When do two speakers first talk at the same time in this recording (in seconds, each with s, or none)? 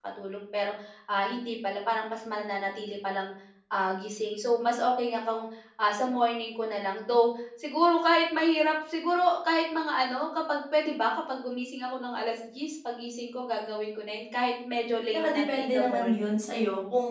15.0 s